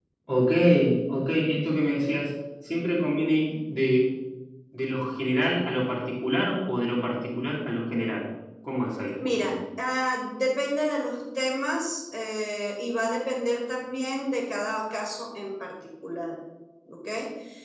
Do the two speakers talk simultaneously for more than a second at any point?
No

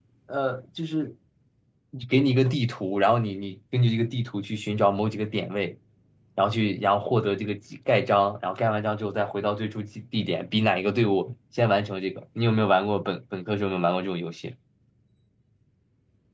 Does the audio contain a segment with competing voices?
No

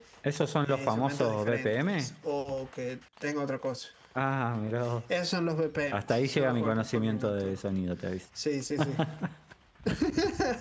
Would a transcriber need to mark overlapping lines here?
Yes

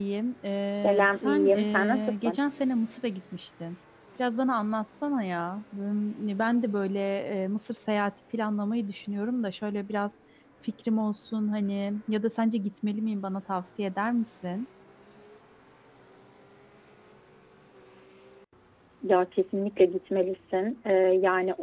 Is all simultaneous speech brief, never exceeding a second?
No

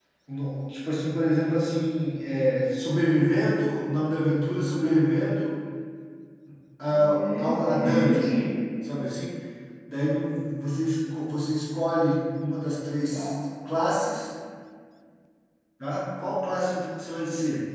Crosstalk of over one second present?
Yes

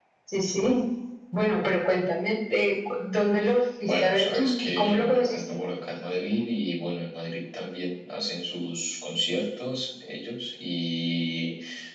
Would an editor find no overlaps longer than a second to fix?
No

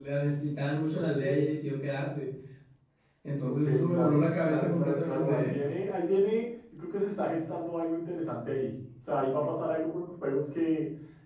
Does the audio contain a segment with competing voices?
Yes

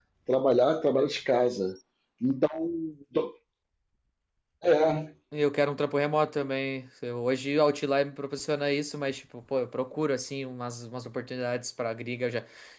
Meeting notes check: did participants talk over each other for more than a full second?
No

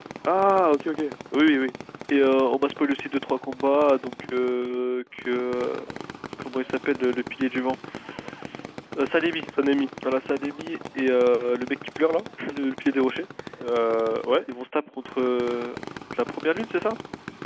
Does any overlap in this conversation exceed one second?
No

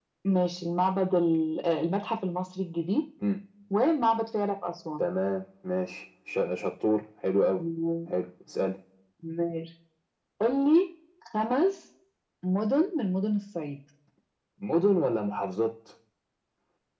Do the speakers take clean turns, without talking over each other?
Yes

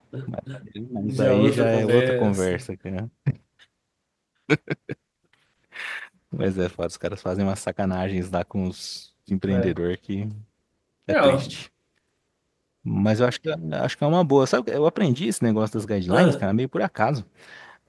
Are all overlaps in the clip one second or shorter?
No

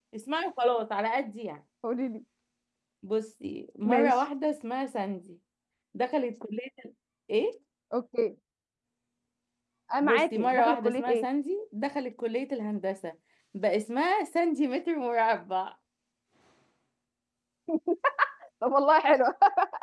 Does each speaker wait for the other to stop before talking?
No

